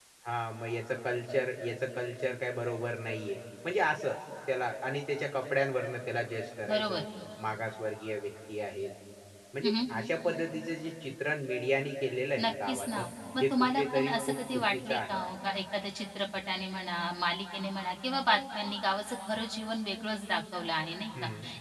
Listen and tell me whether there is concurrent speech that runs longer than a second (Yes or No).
Yes